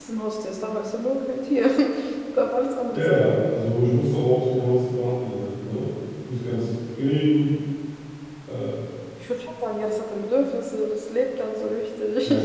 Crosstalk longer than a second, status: none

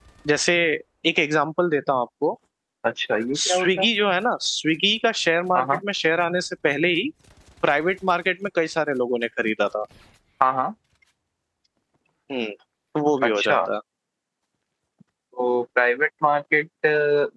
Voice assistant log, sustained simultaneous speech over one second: none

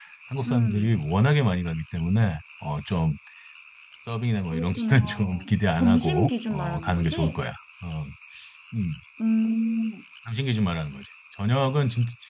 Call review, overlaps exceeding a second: present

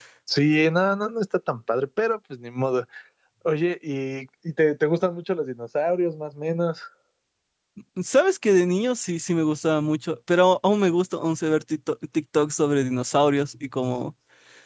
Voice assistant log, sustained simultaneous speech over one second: none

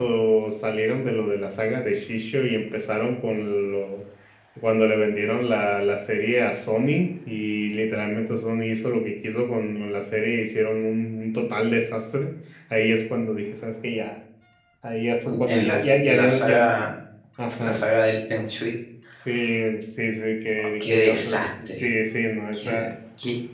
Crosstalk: present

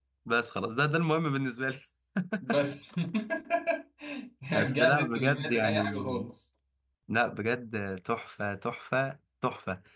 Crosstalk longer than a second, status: present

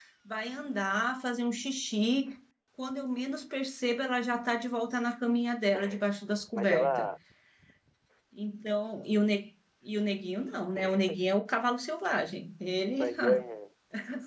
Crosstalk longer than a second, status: none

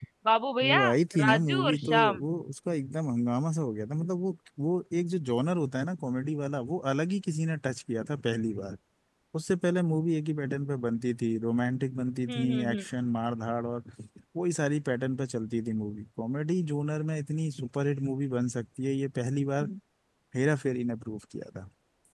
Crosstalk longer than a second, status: present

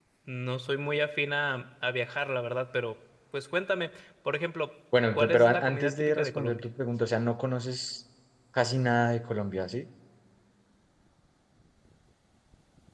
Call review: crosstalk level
present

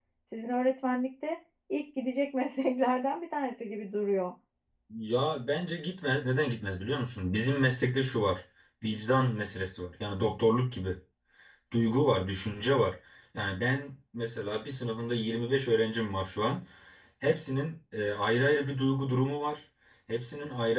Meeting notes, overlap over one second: none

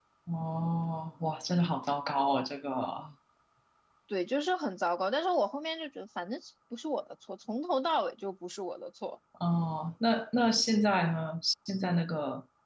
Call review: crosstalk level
none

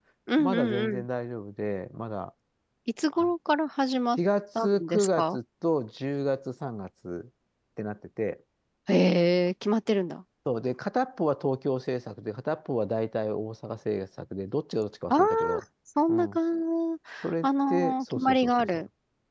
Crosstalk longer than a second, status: present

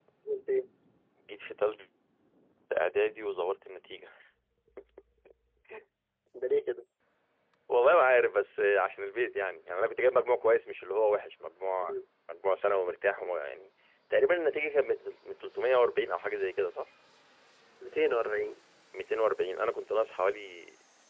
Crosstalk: none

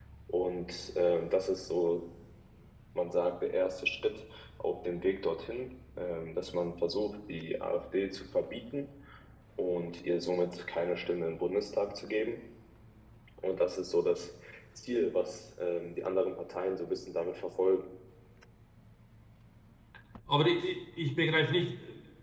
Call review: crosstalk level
none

